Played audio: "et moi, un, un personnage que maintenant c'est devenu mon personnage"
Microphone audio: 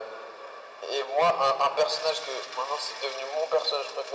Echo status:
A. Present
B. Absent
A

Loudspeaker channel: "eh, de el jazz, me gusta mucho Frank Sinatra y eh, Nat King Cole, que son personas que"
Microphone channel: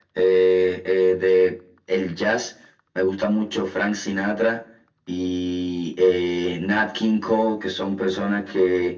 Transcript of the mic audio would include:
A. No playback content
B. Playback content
B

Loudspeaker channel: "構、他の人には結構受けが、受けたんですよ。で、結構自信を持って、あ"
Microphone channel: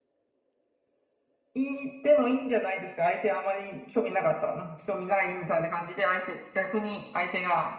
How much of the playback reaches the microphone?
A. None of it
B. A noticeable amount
A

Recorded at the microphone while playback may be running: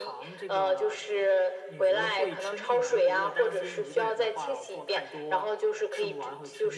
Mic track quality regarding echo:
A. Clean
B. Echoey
B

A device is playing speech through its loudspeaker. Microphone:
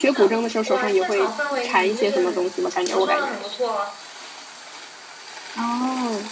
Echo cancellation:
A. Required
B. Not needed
A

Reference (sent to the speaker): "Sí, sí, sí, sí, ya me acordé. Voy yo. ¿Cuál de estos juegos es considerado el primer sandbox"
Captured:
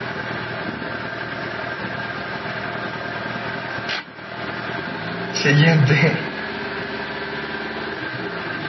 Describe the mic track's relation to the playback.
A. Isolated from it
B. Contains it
A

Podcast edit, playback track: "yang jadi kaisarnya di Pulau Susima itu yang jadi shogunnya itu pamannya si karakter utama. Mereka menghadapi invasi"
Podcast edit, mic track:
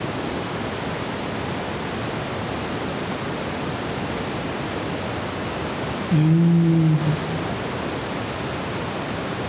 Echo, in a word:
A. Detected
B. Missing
B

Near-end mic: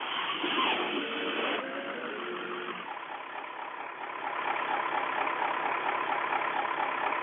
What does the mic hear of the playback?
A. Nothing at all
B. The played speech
A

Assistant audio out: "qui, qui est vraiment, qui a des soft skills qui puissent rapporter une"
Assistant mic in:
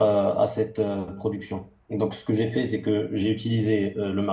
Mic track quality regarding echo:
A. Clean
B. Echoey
A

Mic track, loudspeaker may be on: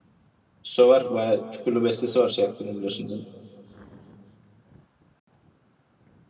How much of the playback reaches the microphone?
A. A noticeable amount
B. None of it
B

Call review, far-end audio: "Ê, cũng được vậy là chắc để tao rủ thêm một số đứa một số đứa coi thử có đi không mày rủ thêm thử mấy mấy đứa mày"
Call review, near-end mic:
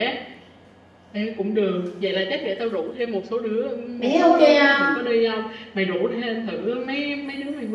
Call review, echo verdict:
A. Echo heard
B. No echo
A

